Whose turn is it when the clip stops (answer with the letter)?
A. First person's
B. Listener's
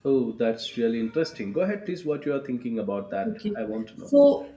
B